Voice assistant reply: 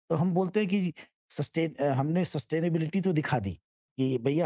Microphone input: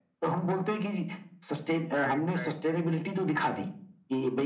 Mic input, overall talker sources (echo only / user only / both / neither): both